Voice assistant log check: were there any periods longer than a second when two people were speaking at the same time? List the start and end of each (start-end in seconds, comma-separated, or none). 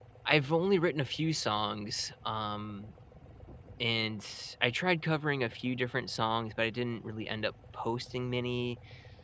none